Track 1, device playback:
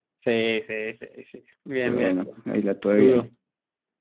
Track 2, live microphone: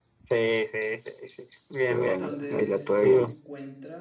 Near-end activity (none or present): present